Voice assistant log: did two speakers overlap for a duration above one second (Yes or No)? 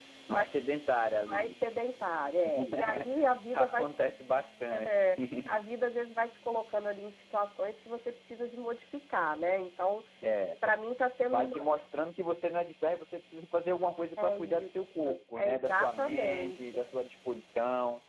Yes